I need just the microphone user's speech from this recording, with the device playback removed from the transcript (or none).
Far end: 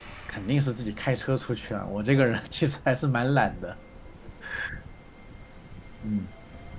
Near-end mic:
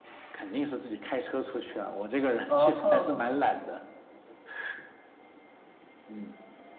啊哈，